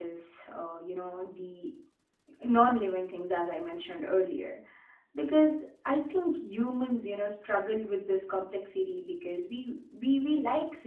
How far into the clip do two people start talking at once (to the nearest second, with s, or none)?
none